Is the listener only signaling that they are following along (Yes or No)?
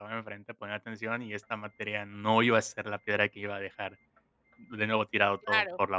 No